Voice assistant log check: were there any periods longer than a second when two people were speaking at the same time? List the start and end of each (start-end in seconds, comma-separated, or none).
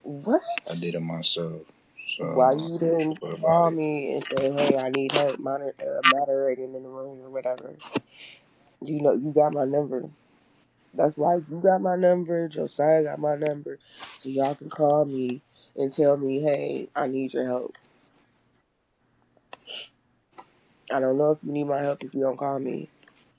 2.2-3.7